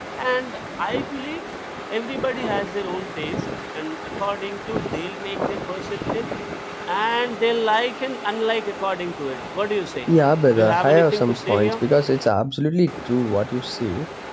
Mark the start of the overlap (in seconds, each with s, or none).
10.6 s